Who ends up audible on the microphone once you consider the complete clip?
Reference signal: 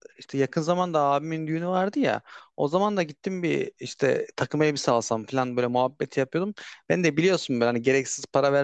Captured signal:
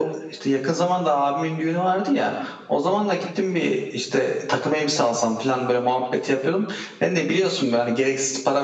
echo only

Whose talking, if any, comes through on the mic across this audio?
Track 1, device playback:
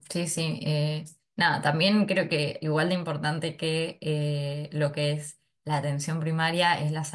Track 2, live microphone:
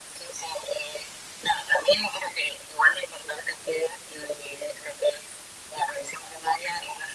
echo only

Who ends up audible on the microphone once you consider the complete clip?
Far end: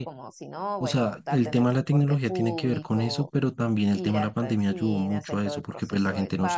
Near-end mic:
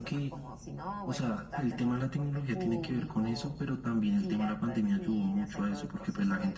echo only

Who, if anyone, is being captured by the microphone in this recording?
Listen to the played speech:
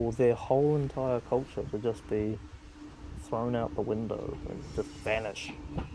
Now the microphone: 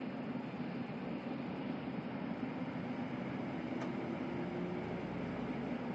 neither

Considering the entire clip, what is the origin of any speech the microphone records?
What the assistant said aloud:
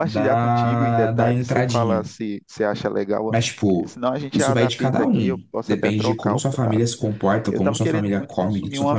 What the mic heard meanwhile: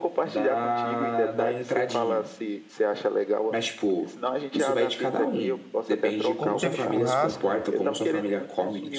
both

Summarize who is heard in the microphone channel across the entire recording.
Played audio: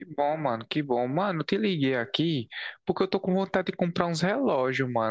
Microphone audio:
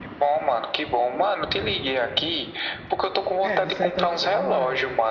both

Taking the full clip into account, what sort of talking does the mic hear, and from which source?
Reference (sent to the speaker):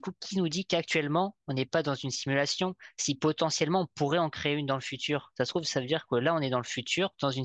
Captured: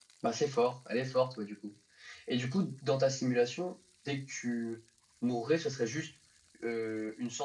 user only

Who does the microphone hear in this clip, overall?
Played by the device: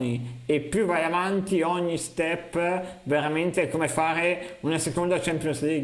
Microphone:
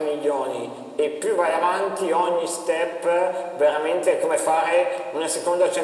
echo only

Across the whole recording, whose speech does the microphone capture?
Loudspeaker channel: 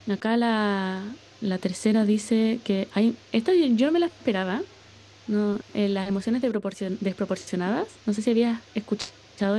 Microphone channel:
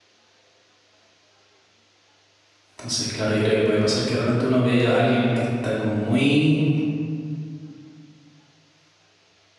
user only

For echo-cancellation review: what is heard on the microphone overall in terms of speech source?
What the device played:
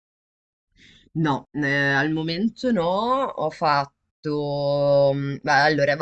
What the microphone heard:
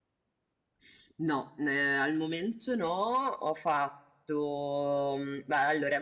echo only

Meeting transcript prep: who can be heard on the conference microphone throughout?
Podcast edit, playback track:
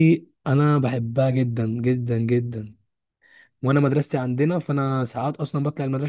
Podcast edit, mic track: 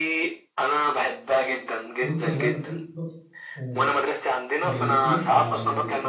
both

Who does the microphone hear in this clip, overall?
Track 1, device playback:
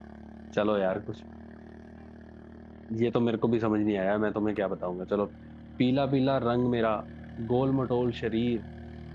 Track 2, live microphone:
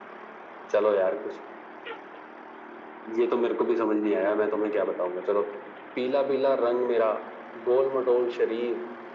echo only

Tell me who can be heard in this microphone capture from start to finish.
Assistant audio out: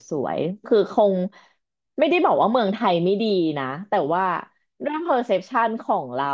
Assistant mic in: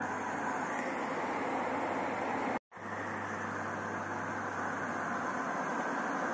neither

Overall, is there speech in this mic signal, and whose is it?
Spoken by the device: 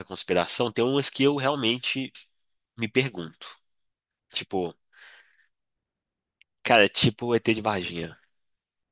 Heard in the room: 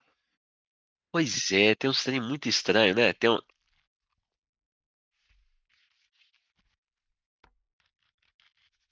user only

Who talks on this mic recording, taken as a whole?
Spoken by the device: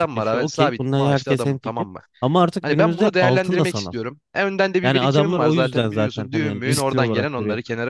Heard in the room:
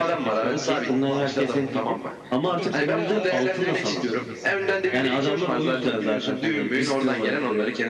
both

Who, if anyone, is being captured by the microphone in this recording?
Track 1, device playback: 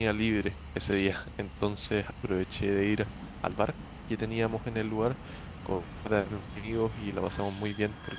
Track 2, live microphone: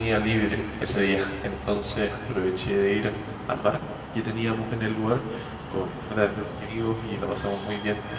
echo only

